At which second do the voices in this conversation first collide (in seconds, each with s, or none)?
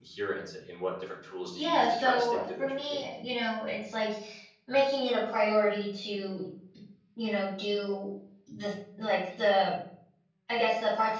1.6 s